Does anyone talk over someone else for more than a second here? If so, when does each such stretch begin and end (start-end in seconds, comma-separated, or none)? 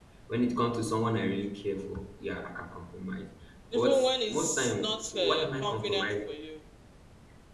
3.7-6.3